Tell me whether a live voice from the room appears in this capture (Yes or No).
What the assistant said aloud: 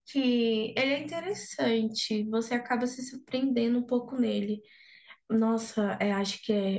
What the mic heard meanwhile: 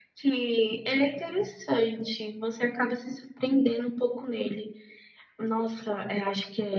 No